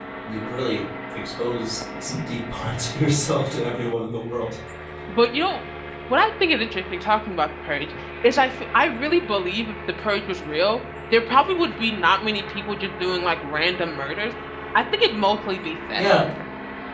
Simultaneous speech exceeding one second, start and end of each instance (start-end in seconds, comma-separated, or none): none